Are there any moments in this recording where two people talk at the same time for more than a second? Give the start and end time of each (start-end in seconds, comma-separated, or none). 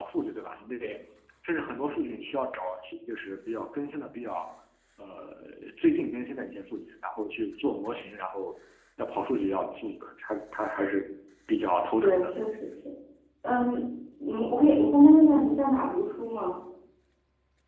none